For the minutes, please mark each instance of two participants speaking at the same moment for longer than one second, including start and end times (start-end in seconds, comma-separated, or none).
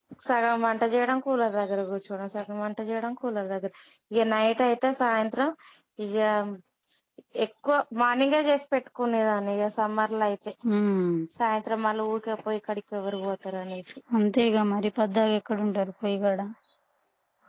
none